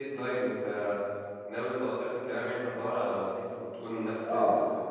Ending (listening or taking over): taking over